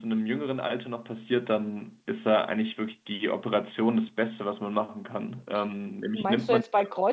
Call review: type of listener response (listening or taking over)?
taking over